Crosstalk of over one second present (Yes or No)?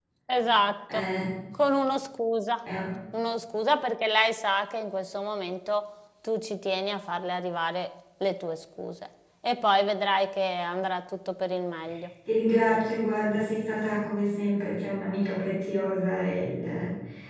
No